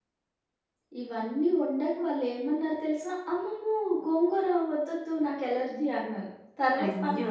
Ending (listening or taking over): listening